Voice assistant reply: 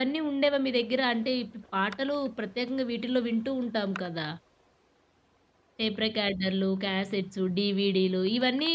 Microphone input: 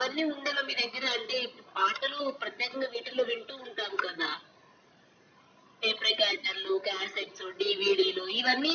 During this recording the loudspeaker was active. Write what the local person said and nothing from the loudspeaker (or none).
none